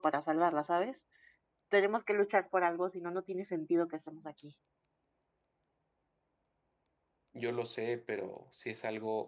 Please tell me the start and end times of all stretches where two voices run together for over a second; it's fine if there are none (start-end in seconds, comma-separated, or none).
none